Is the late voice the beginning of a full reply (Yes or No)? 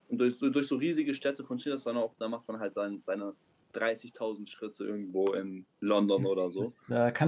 Yes